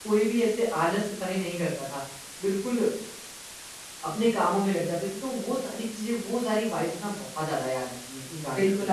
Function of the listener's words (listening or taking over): taking over